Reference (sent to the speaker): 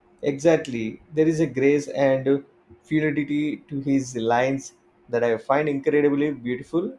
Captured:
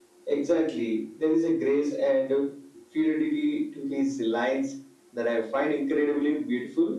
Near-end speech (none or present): none